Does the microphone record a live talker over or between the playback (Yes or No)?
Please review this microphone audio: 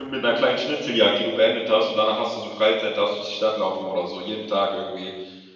Yes